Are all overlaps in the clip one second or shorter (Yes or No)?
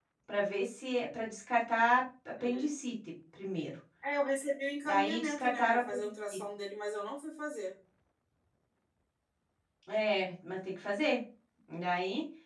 No